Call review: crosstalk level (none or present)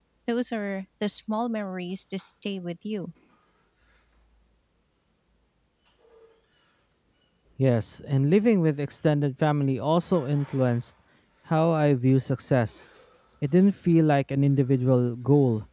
none